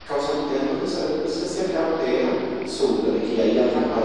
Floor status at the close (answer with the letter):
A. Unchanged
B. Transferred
A